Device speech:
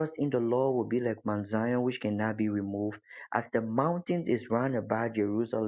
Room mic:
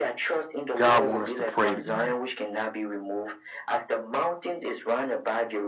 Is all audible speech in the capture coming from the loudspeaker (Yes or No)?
No